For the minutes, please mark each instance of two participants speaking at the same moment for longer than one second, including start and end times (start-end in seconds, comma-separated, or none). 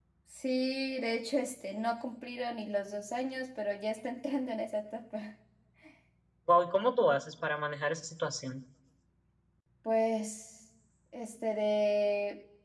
none